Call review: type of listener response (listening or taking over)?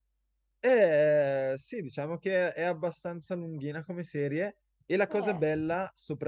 listening